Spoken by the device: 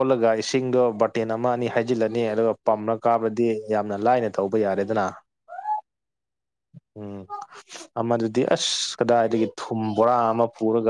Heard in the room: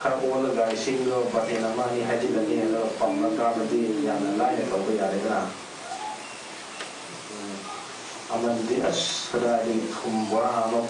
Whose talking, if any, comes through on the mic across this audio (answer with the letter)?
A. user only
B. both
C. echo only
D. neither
B